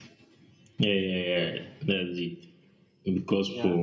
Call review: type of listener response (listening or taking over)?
listening